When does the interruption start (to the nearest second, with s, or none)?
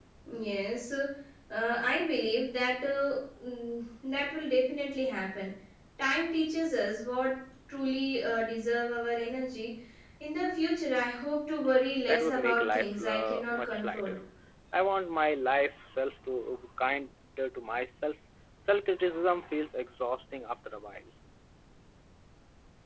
12 s